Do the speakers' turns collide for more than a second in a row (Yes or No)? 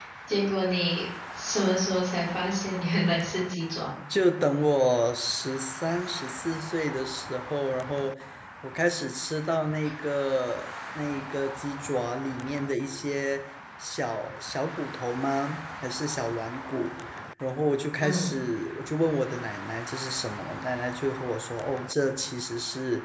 No